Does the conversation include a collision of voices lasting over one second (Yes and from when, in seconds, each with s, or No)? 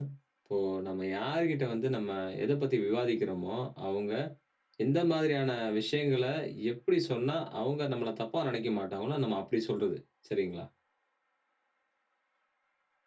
No